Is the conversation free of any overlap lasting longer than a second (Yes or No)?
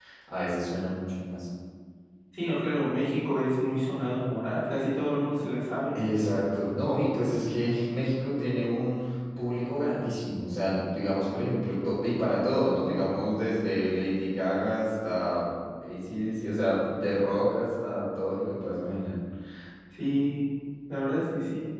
Yes